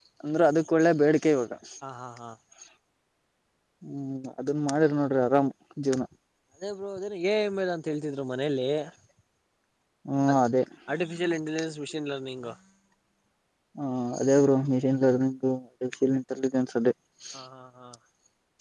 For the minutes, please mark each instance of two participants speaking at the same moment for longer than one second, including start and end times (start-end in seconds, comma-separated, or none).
none